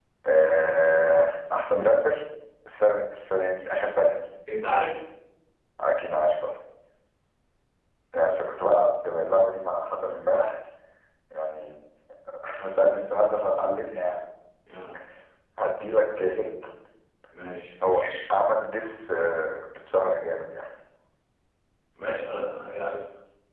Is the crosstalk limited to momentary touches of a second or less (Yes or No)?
Yes